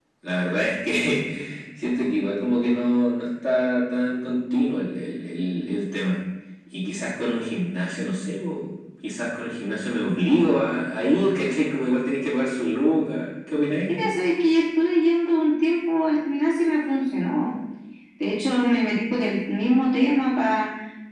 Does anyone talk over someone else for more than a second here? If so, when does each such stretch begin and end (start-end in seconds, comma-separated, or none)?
none